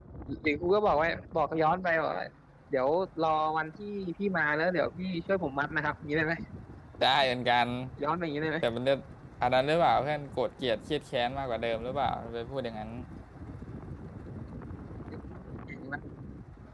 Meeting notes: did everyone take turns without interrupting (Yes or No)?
Yes